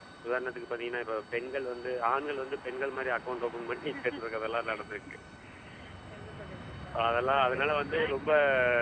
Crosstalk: present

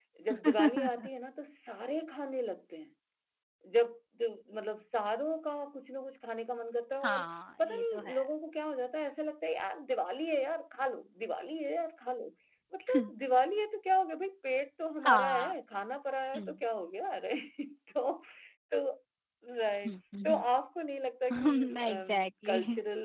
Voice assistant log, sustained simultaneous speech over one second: present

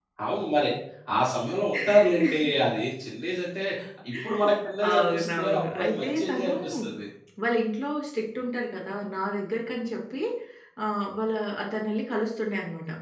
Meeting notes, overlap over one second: present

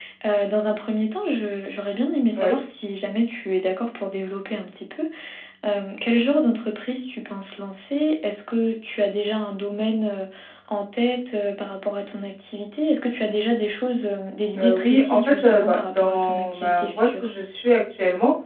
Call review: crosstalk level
present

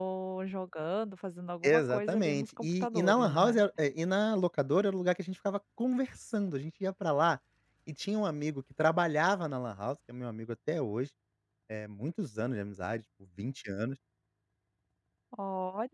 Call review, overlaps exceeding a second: present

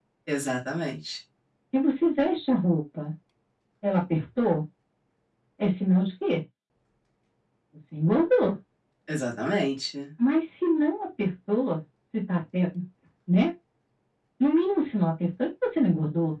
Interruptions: none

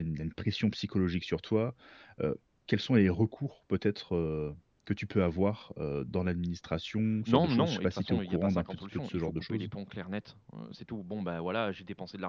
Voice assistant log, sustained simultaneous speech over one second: present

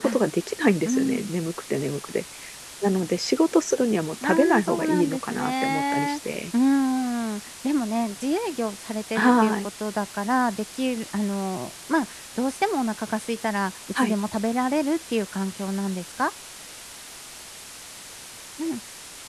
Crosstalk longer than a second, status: present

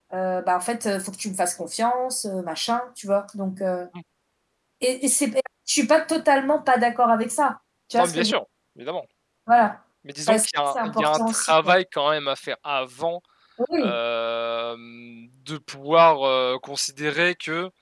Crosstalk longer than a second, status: present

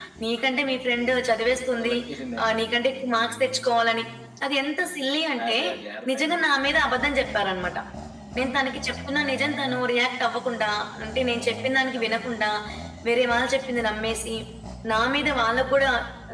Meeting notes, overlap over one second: none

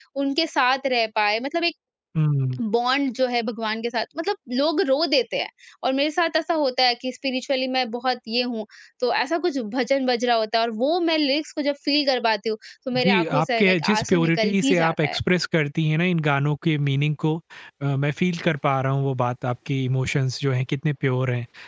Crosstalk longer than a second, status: present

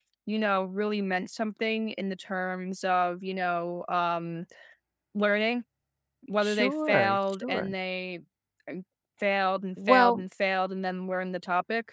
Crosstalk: present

